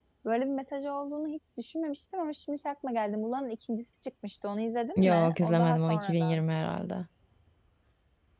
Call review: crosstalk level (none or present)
present